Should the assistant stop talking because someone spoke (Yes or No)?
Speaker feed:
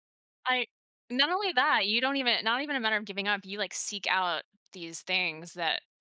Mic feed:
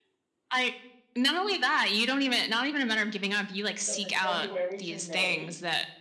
Yes